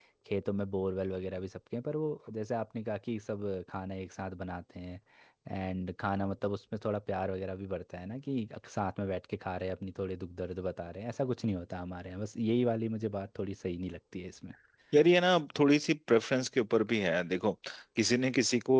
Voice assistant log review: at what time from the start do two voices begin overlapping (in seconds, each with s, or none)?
none